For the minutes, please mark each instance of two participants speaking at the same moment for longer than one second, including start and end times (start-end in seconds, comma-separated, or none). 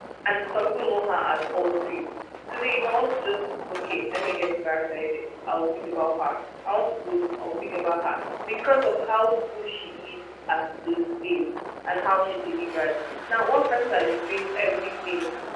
none